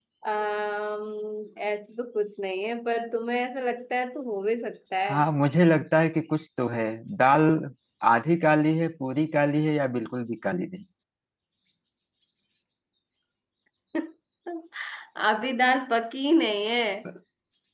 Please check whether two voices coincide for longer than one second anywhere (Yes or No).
No